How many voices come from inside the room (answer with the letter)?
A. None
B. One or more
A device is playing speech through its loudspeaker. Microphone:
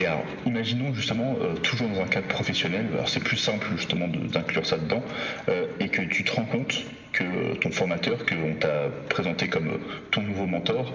A